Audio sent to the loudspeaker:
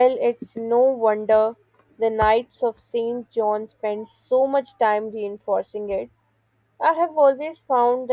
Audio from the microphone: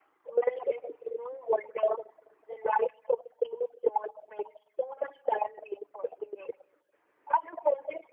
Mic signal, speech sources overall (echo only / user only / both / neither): echo only